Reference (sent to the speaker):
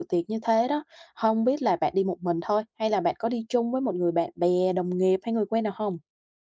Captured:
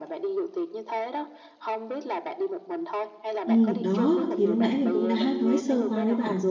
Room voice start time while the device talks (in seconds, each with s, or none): 3.5 s